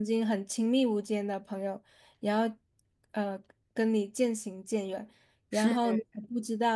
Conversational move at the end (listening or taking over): listening